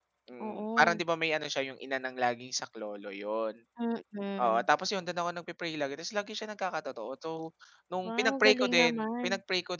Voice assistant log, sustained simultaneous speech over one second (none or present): present